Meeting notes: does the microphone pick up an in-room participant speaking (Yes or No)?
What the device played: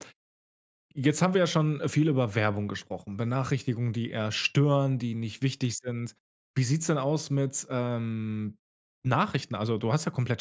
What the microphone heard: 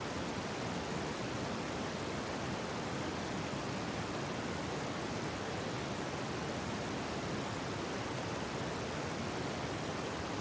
No